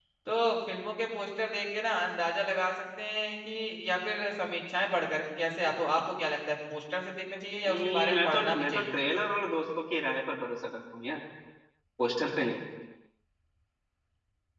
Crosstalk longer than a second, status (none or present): present